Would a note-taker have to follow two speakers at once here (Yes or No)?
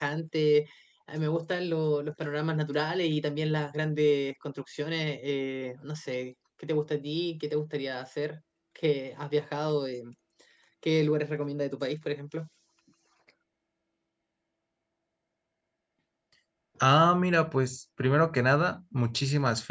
No